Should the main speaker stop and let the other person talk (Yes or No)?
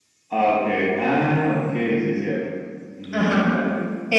Yes